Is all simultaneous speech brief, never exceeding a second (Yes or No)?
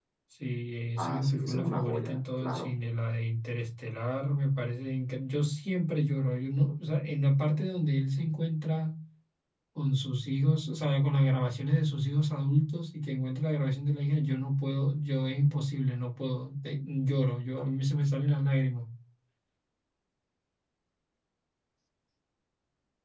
No